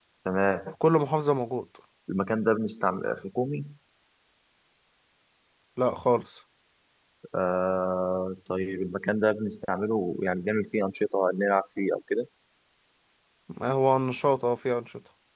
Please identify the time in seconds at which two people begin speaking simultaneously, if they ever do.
none

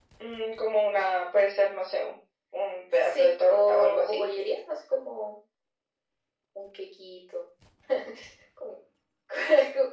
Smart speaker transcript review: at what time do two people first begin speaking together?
3.0 s

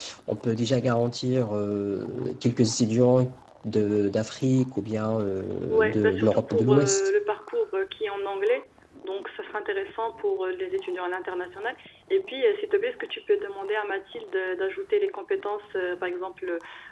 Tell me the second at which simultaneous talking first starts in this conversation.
5.7 s

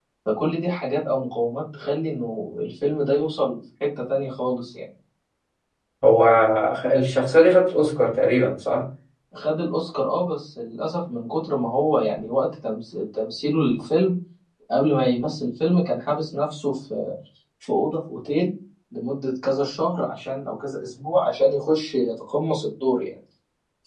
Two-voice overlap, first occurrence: none

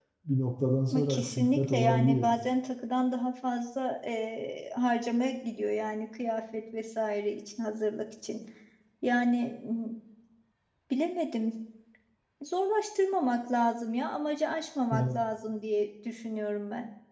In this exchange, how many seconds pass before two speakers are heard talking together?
0.9 s

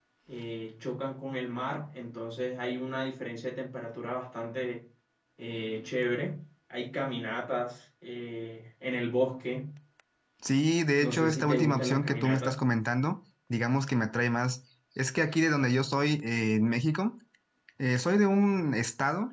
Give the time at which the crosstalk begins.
11.0 s

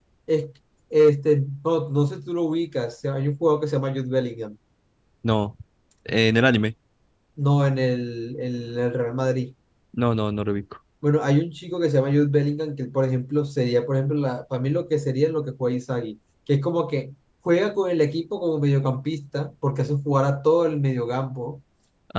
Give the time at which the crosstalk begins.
none

